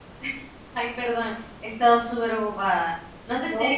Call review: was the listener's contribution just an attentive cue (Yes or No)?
Yes